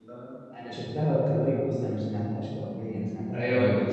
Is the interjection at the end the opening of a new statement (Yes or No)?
Yes